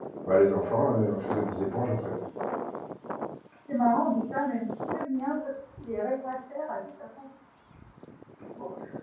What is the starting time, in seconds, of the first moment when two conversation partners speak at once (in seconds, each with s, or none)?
none